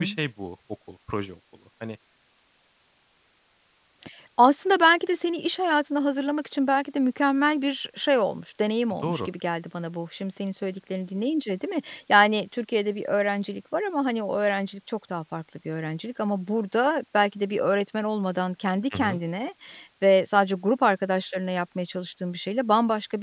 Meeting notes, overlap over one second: none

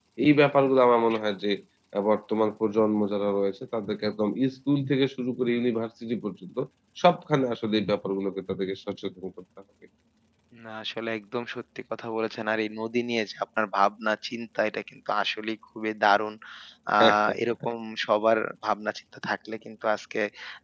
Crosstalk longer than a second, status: none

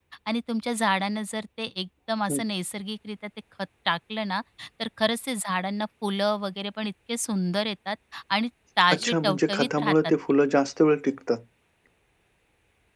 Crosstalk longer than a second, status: present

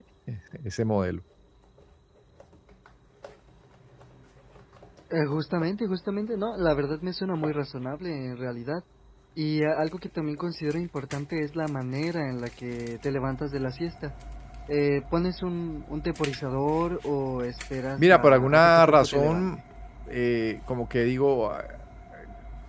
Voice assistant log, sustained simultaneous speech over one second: present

